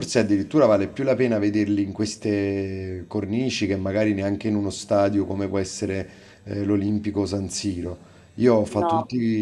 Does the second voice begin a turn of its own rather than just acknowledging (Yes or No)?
No